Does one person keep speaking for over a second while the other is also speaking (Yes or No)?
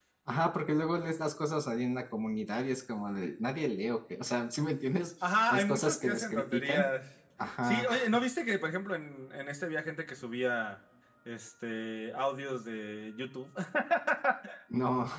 Yes